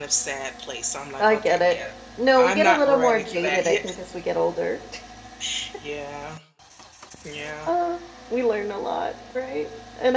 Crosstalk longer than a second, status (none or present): present